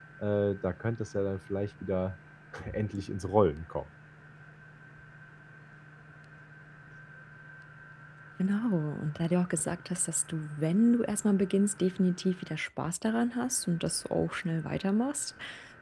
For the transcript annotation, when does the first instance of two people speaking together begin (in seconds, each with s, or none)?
none